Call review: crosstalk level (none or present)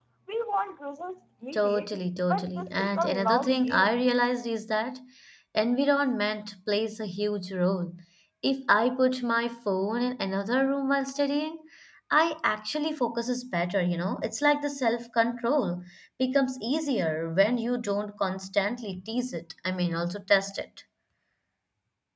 present